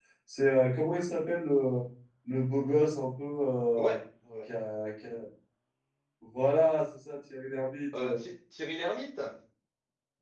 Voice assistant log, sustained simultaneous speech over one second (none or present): none